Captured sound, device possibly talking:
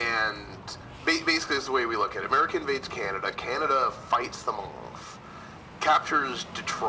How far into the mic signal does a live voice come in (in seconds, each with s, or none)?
none